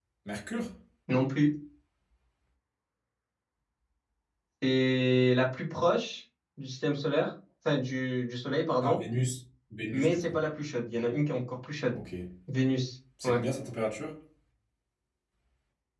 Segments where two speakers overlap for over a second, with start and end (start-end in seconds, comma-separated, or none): none